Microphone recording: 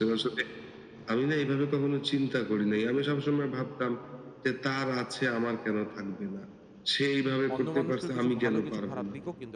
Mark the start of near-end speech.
7.5 s

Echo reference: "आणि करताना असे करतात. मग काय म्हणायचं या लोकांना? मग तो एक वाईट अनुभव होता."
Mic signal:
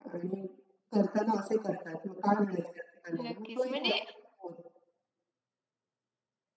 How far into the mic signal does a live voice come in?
3.2 s

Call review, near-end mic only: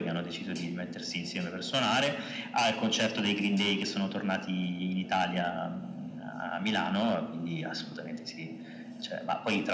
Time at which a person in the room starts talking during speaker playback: none

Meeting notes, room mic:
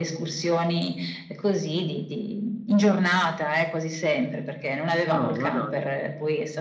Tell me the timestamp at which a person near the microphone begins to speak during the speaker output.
5.1 s

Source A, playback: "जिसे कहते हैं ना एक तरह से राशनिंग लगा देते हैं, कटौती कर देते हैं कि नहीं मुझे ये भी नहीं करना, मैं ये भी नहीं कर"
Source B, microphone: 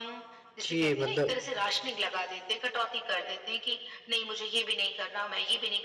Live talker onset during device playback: 0.6 s

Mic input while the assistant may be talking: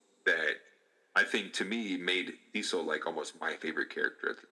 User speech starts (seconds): none

